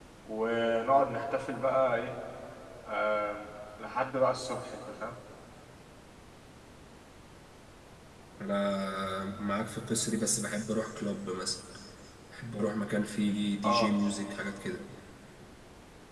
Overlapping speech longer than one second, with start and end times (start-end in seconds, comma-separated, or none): none